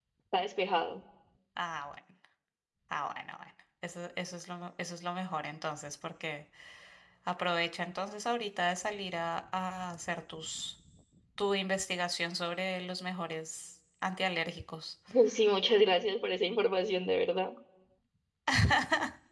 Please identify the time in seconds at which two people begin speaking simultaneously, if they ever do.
none

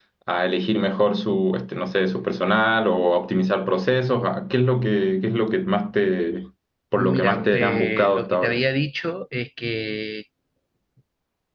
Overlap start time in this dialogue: 7.0 s

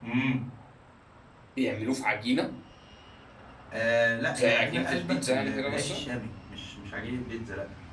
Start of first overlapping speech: 4.4 s

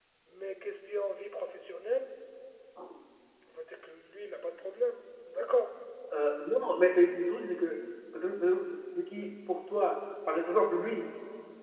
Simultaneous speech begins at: none

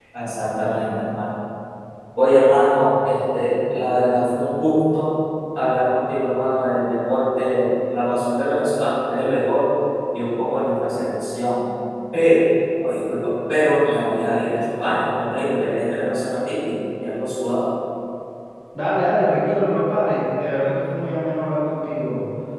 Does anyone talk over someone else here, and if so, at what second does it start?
none

